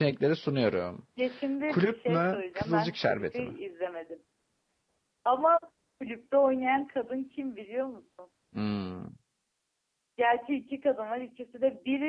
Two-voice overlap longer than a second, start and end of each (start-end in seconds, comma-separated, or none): 1.7-3.5